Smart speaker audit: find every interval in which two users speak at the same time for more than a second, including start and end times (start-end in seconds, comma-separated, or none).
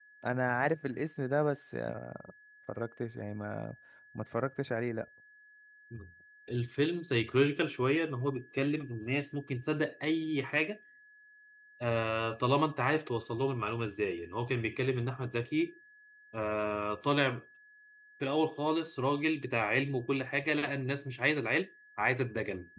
none